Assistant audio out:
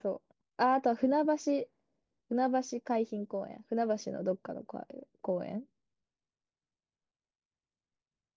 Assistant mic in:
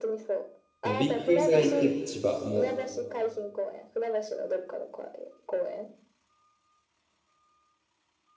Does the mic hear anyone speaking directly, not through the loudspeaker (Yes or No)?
Yes